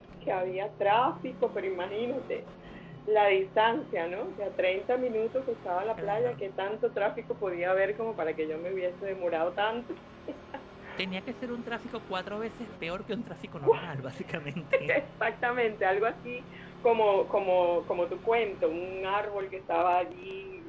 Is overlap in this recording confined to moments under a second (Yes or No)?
Yes